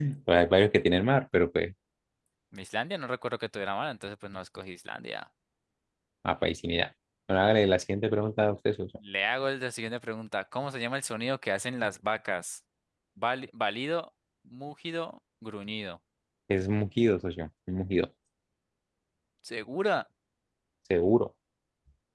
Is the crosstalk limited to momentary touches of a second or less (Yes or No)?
Yes